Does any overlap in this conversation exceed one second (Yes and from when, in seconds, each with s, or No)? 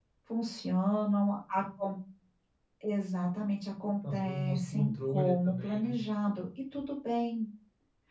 Yes, from 4.0 s